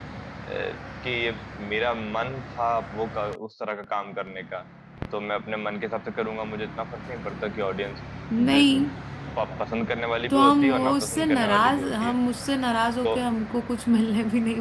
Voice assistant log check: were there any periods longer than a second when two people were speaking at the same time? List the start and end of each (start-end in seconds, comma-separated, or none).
10.3-12.1